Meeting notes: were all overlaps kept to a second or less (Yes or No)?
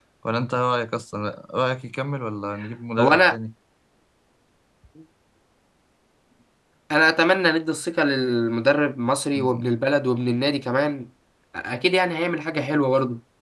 Yes